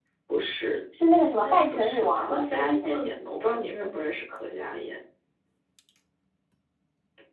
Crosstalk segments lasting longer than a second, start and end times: 1.4-3.0

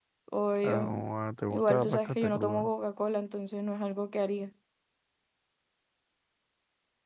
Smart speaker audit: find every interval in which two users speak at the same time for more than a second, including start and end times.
1.5-2.7

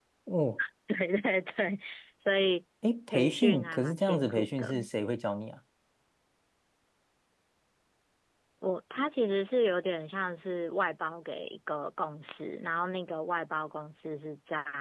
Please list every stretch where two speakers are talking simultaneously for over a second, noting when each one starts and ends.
3.1-4.9

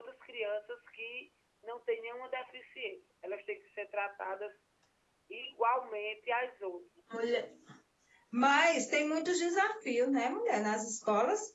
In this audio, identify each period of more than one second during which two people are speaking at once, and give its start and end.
none

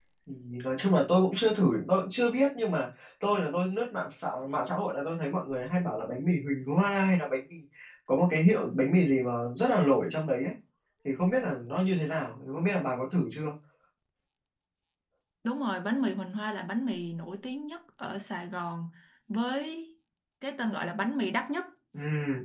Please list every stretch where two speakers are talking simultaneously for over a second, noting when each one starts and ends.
none

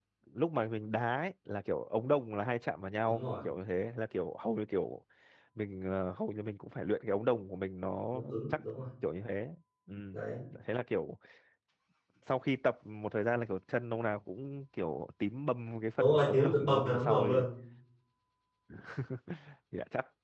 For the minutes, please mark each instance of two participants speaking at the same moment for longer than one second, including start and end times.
16.0-17.5

